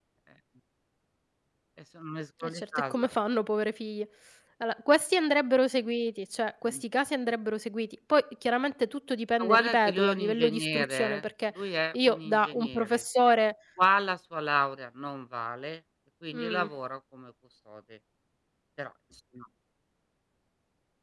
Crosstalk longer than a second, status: present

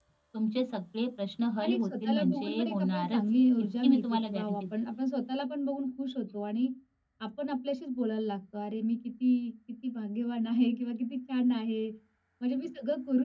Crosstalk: present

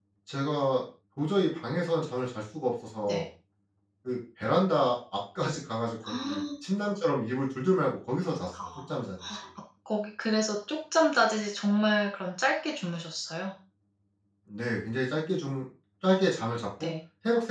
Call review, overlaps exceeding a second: none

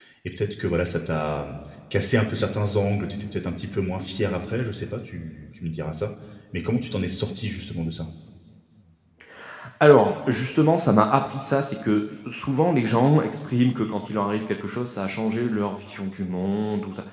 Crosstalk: none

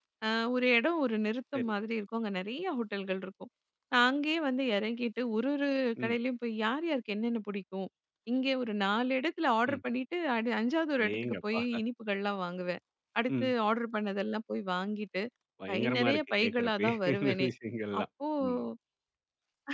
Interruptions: present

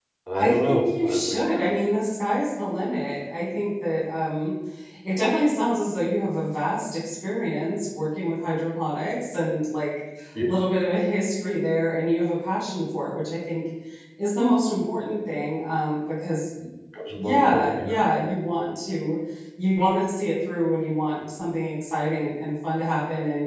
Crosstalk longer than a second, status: present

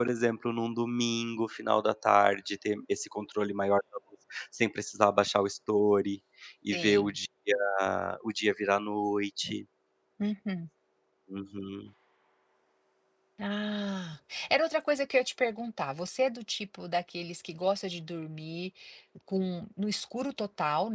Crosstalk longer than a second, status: none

